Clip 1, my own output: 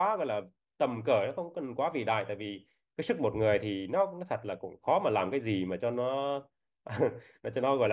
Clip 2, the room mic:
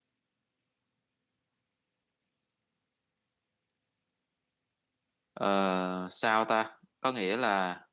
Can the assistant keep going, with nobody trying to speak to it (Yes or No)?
No